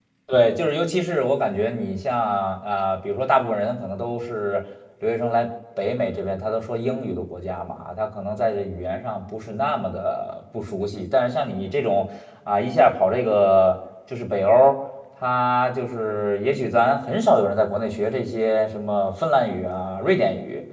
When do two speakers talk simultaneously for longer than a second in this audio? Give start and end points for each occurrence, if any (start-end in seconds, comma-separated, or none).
none